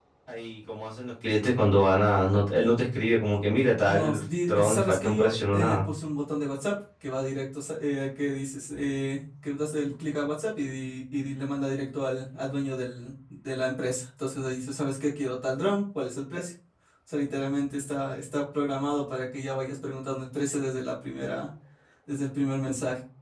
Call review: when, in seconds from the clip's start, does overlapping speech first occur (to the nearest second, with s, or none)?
4 s